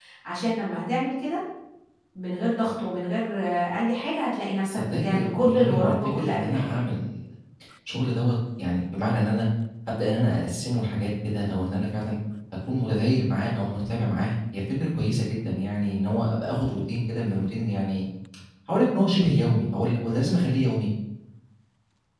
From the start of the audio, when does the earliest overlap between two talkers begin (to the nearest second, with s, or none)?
5 s